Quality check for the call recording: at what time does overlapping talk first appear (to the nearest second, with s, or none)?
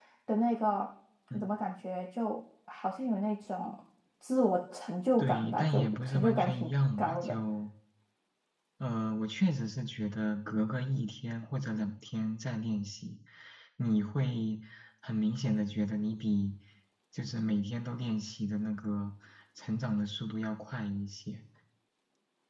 5 s